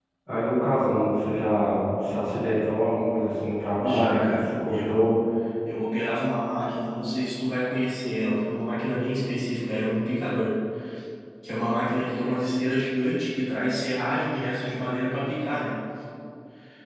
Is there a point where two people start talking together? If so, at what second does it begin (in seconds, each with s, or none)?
3.8 s